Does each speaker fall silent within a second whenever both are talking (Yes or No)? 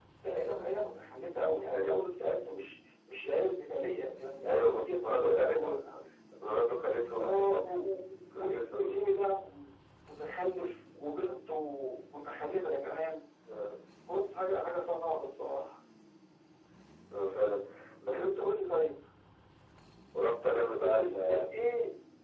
No